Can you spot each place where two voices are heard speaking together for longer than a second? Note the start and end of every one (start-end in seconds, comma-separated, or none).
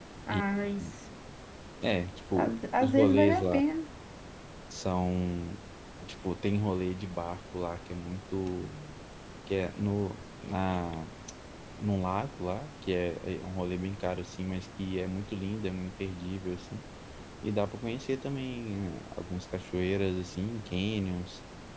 2.4-3.6